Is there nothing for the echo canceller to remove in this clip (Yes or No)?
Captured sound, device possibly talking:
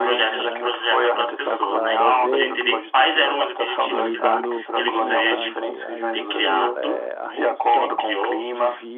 No